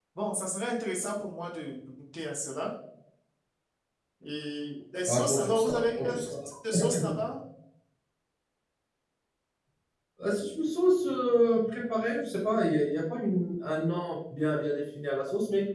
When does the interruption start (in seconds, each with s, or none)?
5.1 s